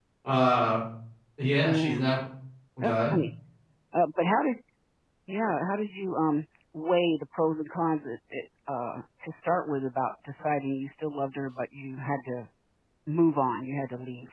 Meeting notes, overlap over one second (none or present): none